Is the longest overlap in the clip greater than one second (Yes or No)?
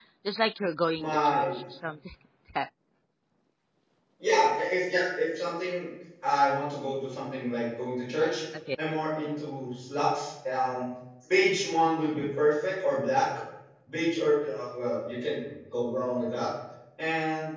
No